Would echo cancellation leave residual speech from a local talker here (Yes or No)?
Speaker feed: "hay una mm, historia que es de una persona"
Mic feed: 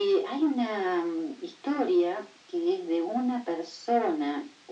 No